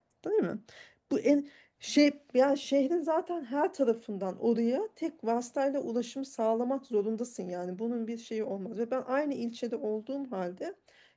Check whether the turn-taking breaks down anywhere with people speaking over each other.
No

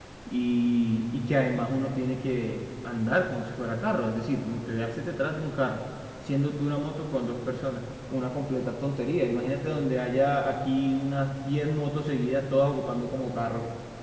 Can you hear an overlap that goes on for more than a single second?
No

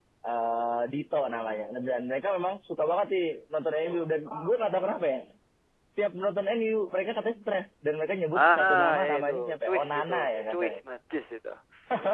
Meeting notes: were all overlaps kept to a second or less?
No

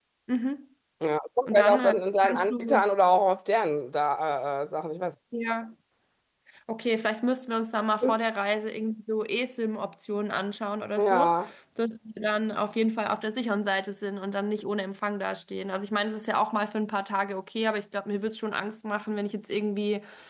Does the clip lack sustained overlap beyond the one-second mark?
No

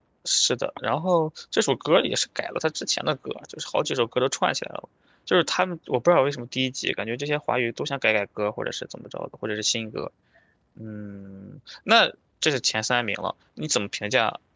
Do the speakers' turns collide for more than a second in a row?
No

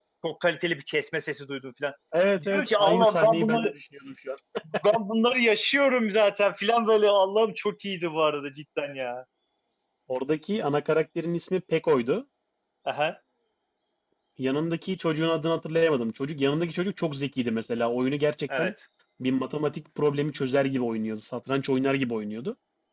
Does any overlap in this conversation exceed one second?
Yes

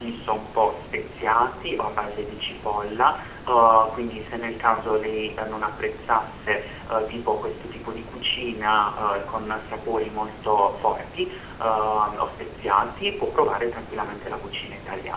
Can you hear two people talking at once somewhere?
No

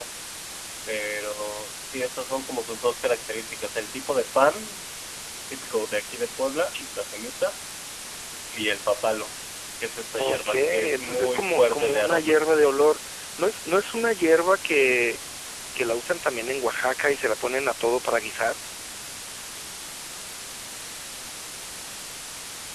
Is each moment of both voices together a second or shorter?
No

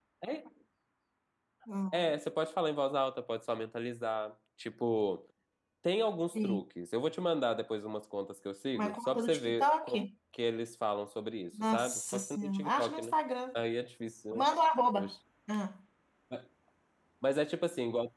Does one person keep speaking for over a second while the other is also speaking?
Yes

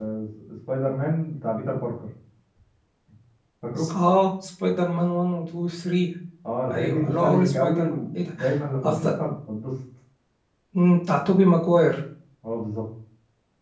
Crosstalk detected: Yes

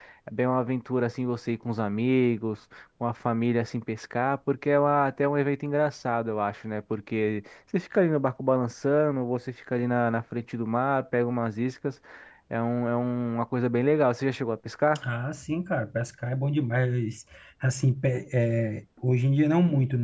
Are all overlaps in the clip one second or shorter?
Yes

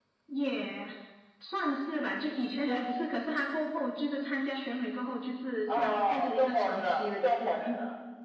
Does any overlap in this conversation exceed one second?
Yes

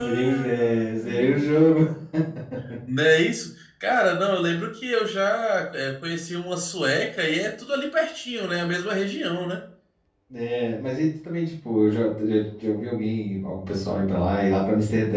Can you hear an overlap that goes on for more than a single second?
Yes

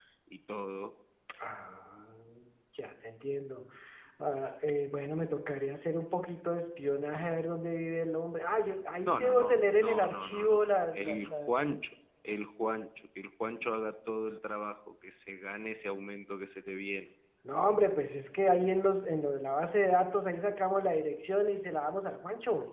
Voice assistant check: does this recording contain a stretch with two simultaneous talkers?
Yes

